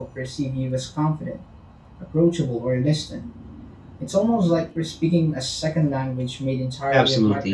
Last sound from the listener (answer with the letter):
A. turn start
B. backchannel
A